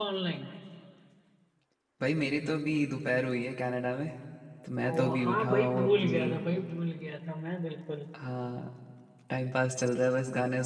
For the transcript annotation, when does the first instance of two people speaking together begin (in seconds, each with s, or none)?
4.9 s